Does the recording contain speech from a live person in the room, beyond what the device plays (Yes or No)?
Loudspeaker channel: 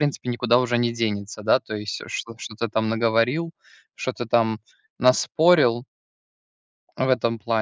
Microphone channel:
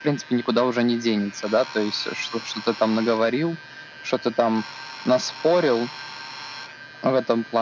No